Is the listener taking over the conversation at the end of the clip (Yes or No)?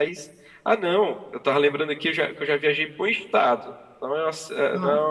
No